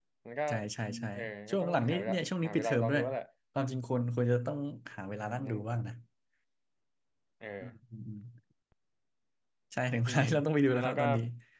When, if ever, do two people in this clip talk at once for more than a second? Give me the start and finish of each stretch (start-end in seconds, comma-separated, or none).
1.5-3.0